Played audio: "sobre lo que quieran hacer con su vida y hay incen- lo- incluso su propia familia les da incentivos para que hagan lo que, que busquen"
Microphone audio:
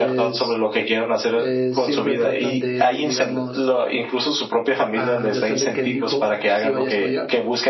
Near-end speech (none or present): present